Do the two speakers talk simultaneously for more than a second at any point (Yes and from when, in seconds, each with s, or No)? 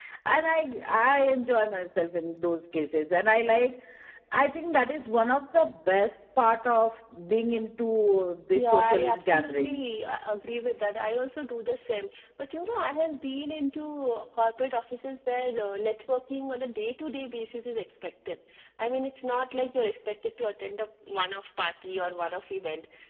Yes, from 8.6 s